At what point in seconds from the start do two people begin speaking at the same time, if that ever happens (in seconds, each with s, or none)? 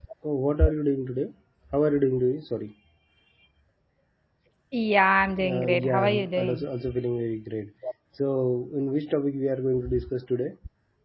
5.5 s